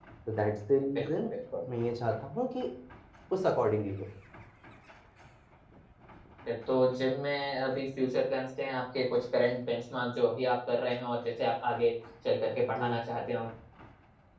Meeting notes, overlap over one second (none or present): none